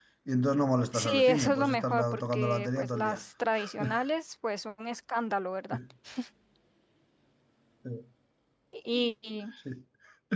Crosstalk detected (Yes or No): Yes